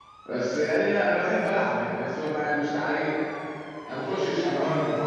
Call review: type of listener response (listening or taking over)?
taking over